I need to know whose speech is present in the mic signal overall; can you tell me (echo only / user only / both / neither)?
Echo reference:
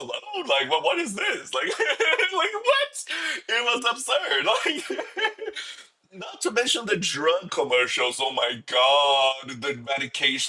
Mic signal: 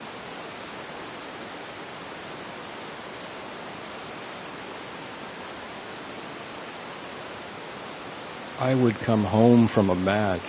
user only